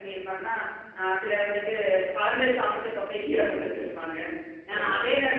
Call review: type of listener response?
listening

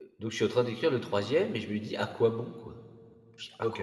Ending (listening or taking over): taking over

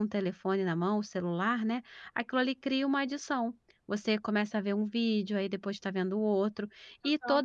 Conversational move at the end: listening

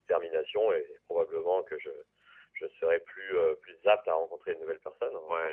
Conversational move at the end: taking over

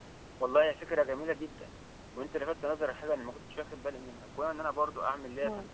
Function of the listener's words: listening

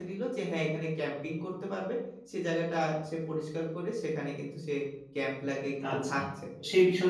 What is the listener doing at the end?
taking over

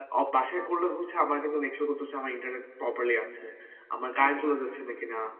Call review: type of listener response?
listening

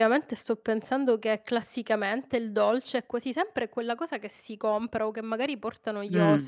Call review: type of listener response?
taking over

